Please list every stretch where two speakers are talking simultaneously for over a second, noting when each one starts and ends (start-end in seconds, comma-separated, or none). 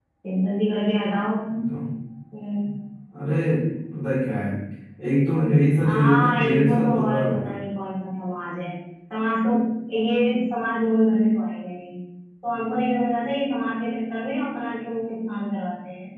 5.9-7.6